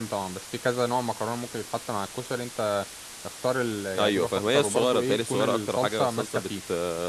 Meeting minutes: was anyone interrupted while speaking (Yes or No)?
Yes